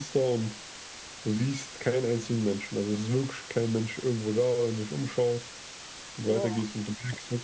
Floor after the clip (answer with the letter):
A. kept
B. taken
A